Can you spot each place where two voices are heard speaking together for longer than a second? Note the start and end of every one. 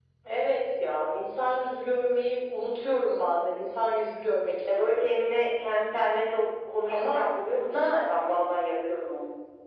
none

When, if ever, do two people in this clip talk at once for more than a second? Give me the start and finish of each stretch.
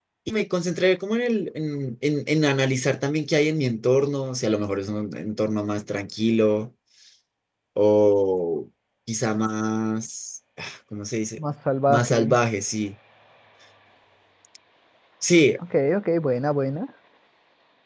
none

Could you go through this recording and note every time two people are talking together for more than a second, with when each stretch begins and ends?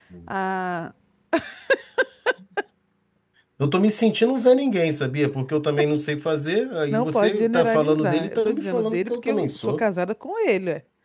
6.9-9.8

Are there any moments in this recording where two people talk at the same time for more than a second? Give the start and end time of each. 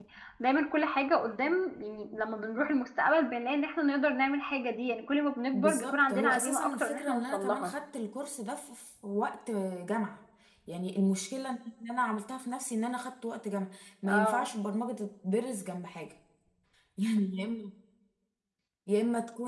5.5-7.7

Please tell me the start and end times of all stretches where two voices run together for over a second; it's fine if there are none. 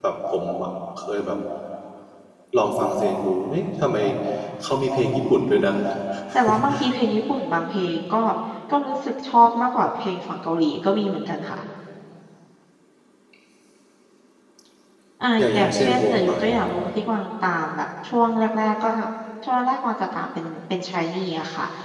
15.4-16.6

